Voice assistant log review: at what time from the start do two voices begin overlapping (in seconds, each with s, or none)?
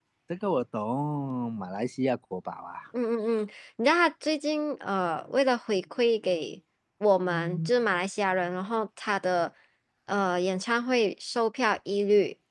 none